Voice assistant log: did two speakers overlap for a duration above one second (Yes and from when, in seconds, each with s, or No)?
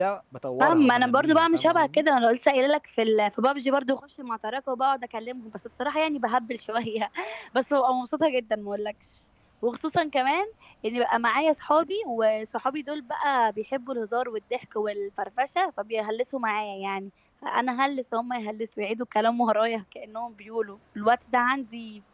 Yes, from 0.6 s